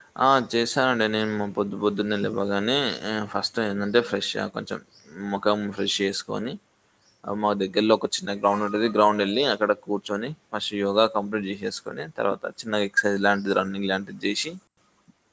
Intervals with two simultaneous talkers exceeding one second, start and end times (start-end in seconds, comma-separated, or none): none